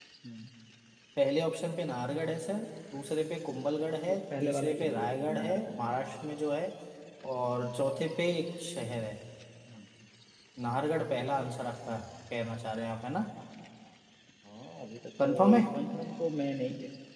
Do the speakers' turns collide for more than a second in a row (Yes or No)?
Yes